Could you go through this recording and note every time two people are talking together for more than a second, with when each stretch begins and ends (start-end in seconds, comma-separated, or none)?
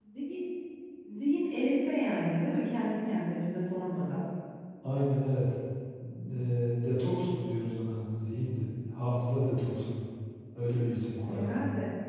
none